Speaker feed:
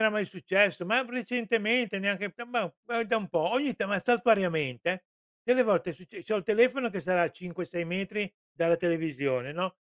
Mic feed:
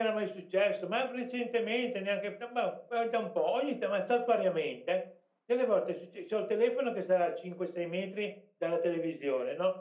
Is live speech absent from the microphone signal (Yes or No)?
Yes